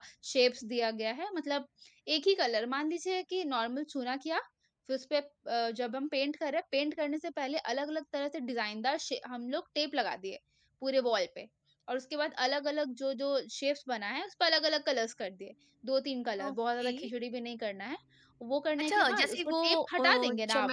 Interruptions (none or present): present